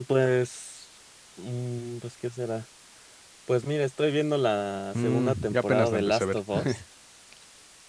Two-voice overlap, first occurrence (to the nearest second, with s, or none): 5 s